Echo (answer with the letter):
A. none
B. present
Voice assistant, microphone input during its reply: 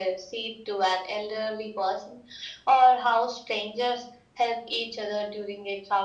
B